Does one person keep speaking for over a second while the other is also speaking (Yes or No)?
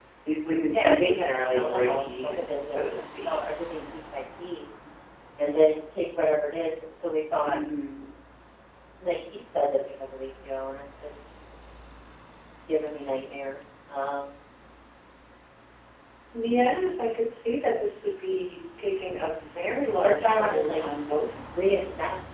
Yes